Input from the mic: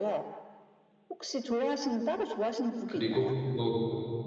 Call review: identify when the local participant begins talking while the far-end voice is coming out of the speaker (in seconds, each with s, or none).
2.8 s